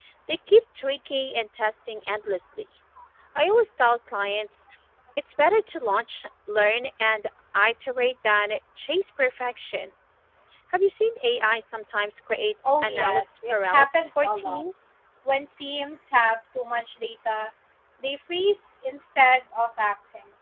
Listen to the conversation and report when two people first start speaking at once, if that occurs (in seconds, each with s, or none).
12.6 s